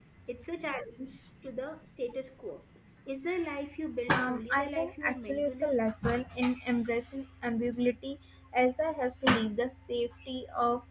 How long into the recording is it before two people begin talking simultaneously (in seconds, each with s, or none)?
4.1 s